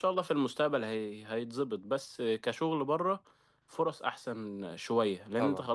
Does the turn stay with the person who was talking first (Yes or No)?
Yes